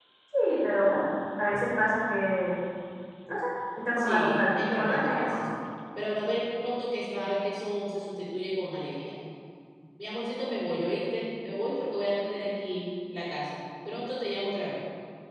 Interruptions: present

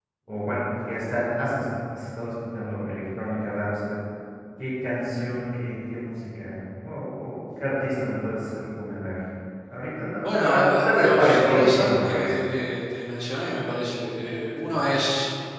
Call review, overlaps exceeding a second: present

